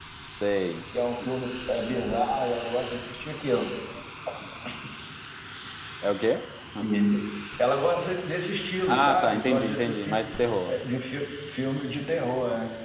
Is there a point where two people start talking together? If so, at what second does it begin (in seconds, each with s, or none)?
8.9 s